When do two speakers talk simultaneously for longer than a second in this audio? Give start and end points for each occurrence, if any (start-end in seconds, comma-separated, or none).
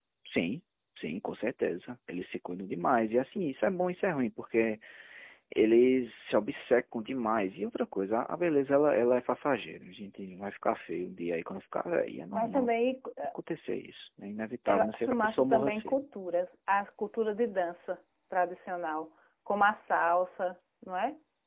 14.7-16.0